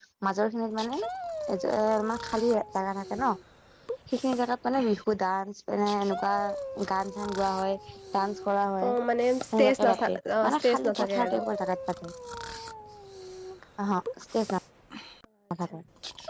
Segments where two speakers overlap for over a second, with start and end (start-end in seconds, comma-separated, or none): 9.6-11.4